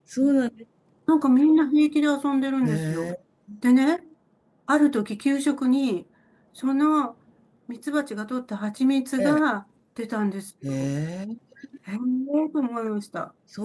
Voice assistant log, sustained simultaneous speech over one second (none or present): none